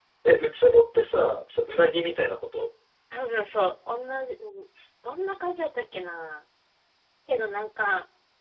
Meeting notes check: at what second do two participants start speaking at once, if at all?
none

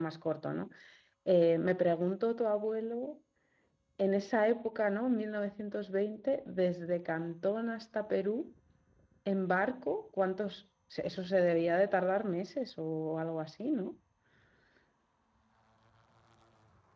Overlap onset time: none

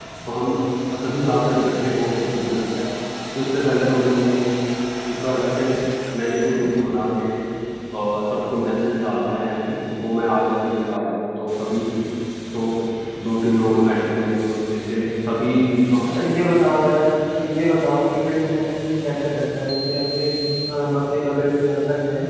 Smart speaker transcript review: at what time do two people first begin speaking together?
none

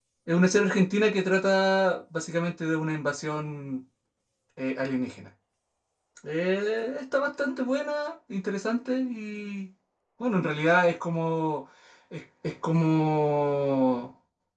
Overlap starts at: none

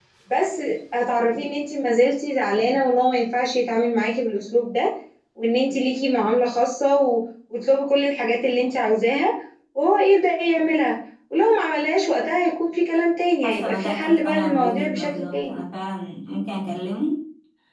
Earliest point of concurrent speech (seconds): 13 s

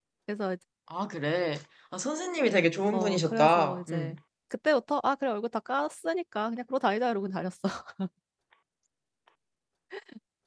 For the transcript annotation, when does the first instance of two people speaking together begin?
3 s

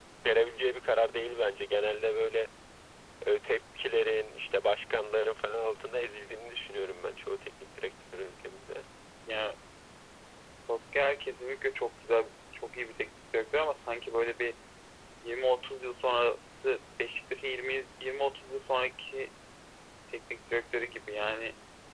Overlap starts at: none

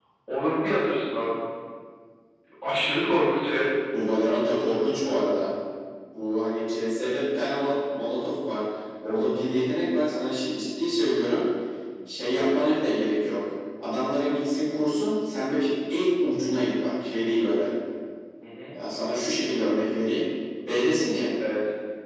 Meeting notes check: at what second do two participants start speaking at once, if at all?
none

